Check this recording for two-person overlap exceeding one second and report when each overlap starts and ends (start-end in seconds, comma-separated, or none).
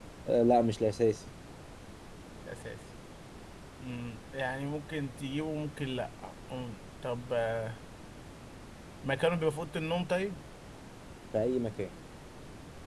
none